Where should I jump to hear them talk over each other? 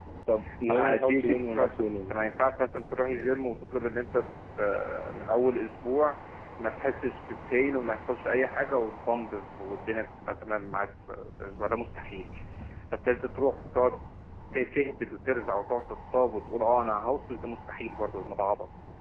0.6 s

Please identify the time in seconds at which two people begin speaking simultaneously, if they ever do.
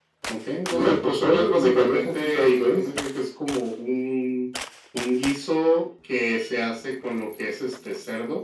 0.7 s

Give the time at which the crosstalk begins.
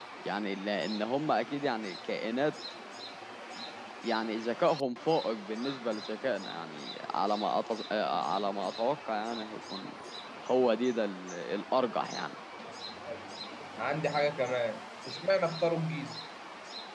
none

